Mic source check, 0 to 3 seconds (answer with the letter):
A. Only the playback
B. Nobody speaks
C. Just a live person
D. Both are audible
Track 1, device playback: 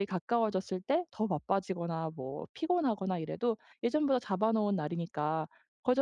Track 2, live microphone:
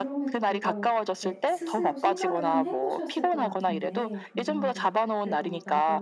D